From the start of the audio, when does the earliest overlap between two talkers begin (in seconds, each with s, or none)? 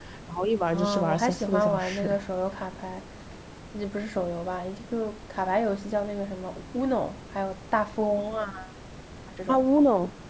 0.7 s